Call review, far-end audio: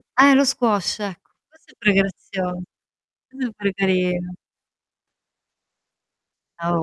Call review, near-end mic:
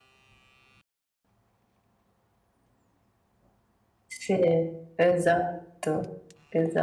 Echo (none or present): none